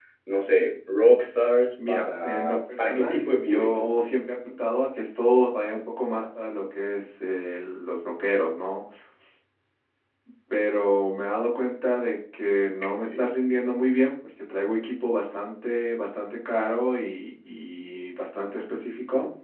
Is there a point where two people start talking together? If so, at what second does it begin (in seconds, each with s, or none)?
1.8 s